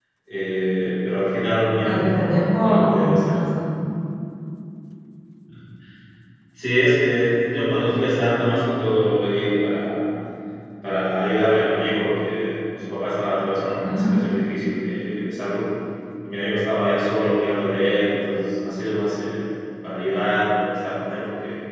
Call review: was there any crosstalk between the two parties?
Yes, from 1.8 s

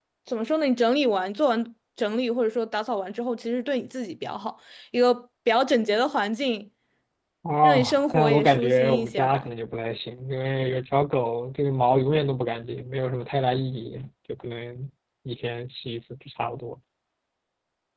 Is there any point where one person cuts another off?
Yes, from 7.6 s

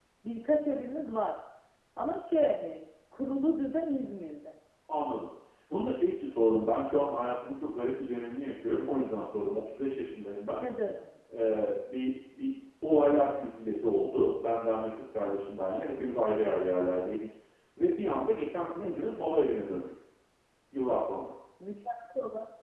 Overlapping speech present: No

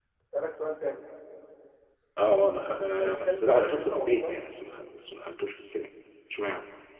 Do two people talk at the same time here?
Yes, from 3.0 s

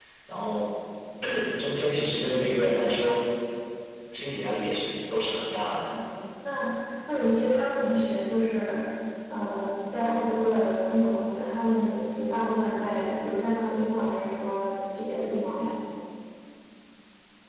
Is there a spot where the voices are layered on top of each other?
No

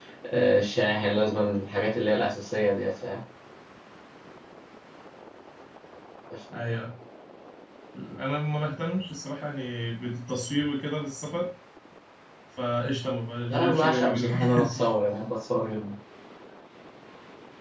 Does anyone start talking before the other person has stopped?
Yes, from 13.5 s

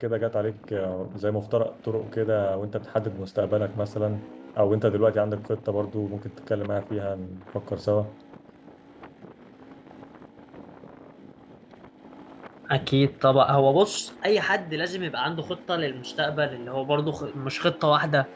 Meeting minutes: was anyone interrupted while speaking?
No

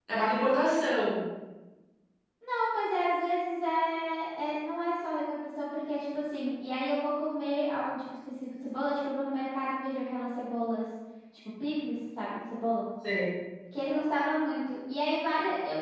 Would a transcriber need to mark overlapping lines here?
No

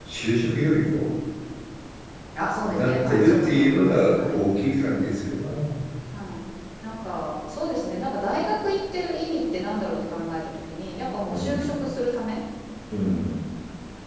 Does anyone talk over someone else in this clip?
Yes, from 2.6 s

